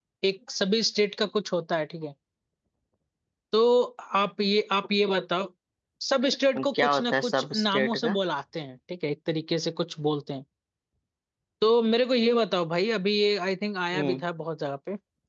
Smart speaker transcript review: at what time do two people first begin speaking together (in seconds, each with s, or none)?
6.6 s